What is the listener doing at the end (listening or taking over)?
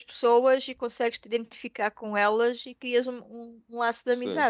taking over